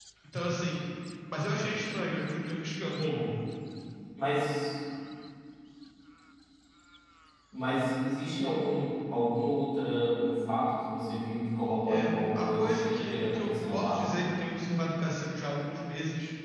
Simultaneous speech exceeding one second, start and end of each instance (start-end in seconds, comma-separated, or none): 11.9-14.1